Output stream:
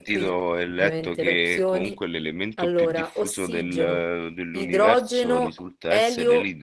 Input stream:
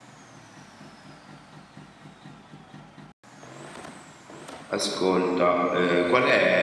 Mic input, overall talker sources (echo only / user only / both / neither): user only